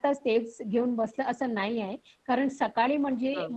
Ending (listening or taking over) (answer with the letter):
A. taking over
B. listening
B